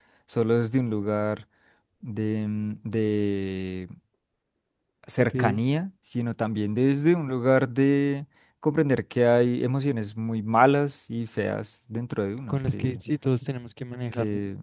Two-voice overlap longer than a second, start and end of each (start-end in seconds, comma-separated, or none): none